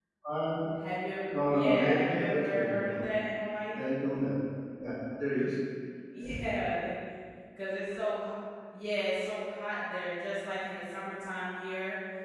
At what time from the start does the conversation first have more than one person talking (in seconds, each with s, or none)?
1.3 s